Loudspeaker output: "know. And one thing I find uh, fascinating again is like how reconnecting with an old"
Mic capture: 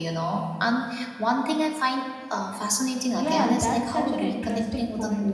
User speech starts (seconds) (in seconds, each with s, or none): 3.1 s